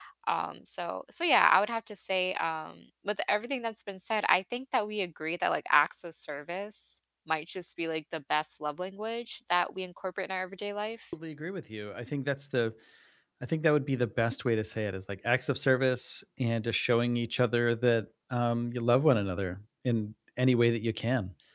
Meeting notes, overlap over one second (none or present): none